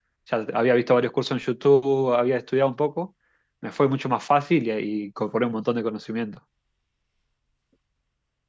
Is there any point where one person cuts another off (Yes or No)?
No